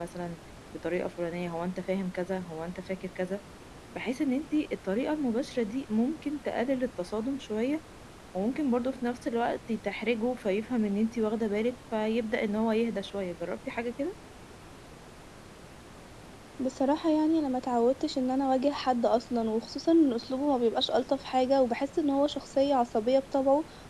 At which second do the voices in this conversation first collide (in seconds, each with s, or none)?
none